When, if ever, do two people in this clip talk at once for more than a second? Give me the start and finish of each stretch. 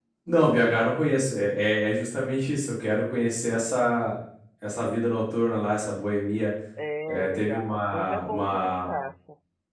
7.1-8.9

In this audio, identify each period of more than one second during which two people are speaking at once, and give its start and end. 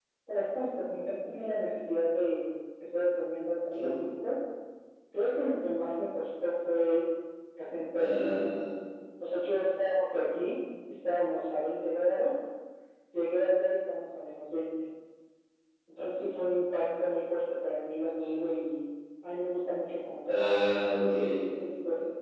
none

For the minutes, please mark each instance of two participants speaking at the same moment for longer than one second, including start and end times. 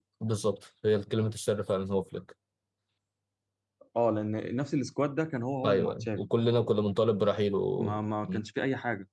none

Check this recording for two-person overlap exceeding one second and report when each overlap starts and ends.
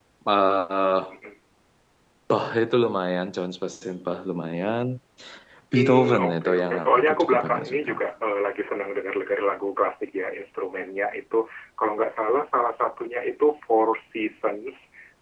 5.7-7.9

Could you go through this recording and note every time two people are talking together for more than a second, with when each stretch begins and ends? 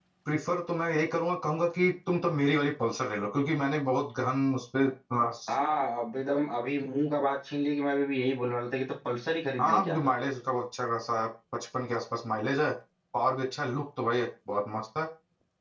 none

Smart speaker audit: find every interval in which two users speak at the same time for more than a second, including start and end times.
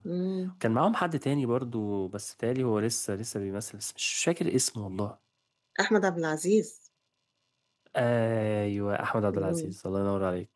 none

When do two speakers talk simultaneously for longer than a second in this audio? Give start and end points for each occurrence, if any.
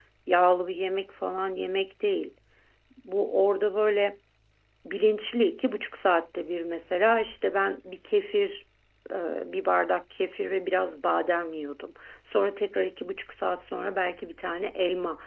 none

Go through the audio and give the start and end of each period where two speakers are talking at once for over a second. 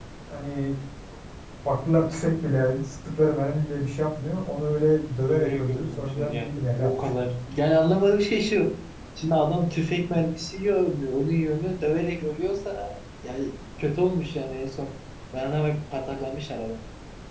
5.3-7.2

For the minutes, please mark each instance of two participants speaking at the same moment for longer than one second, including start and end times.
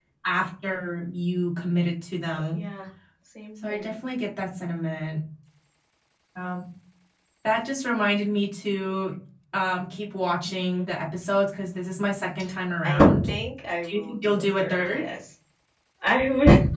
13.8-15.1

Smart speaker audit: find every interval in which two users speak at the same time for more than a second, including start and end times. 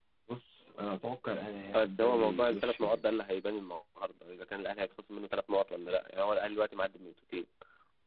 1.7-3.0

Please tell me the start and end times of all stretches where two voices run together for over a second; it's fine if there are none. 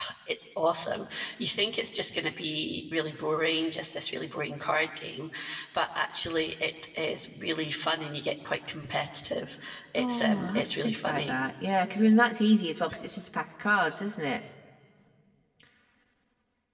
10.0-11.3

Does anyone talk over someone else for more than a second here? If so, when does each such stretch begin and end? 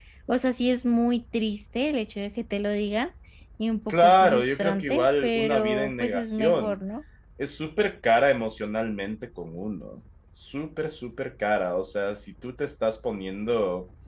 3.9-6.8

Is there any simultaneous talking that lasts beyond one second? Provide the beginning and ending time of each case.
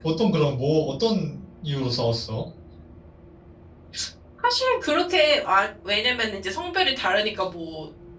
none

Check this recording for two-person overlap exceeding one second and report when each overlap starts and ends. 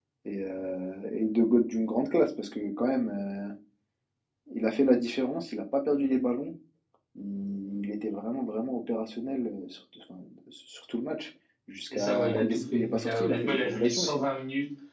11.9-14.3

